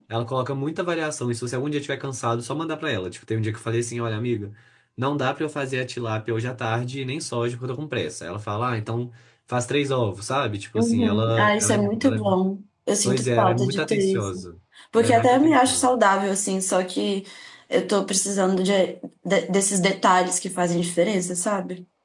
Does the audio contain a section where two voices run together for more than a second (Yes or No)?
Yes